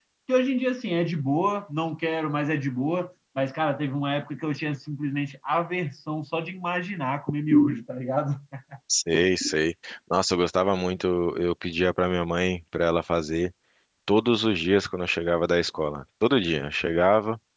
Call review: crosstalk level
none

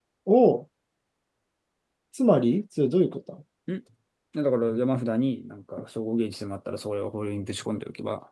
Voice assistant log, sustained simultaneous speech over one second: none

